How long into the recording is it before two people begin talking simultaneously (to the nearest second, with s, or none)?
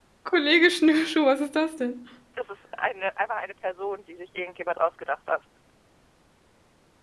none